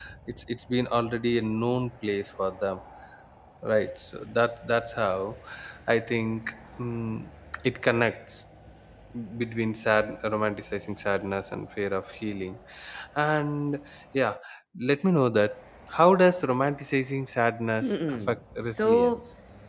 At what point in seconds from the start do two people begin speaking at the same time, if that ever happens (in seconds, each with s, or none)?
17.8 s